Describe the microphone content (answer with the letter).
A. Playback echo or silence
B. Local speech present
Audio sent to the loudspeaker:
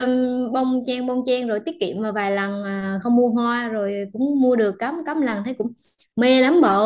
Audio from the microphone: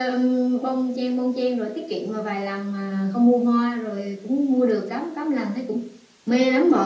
A